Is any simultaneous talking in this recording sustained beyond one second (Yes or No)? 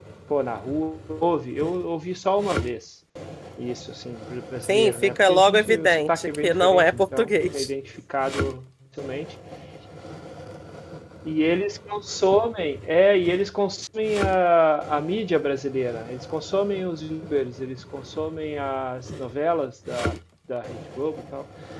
Yes